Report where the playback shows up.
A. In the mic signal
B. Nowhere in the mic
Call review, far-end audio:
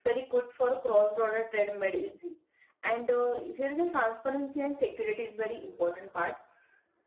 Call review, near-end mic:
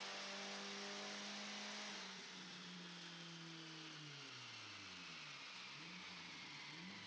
B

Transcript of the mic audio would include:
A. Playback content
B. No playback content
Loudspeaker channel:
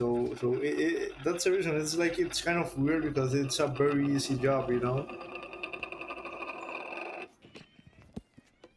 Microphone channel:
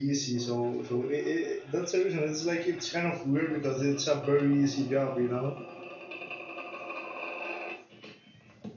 A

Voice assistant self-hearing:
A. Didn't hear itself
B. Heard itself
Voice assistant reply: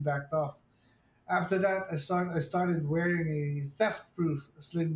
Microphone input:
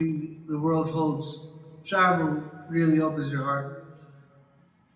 A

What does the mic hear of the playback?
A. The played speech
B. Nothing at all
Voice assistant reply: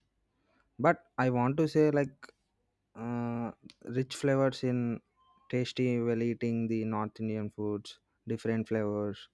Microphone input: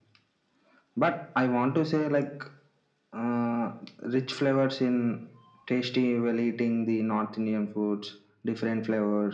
A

